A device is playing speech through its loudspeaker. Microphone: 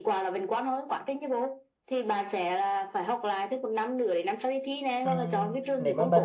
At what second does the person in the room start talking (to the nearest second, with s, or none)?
5 s